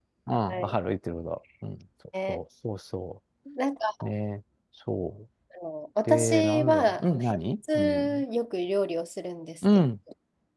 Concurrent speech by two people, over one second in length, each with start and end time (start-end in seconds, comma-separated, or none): 6.1-7.4